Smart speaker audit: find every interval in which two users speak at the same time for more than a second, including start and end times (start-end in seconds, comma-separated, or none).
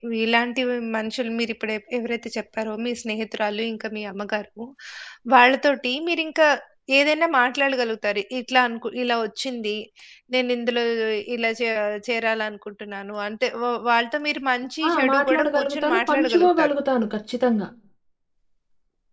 14.9-16.8